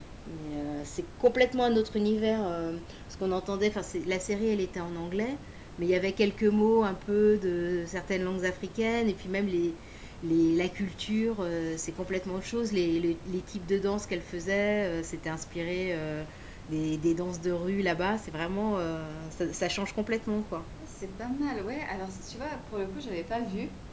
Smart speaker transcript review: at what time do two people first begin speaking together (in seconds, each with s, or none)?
none